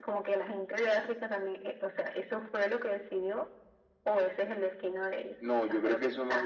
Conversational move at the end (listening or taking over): taking over